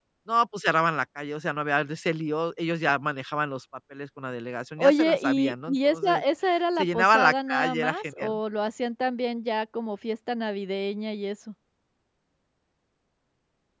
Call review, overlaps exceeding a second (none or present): present